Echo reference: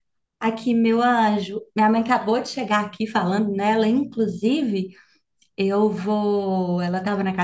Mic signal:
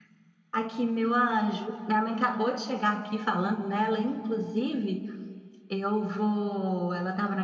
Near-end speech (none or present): none